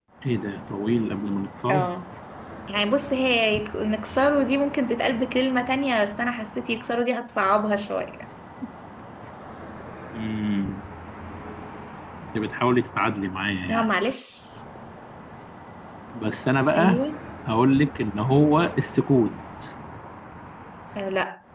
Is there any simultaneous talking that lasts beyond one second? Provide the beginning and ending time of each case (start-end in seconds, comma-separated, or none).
none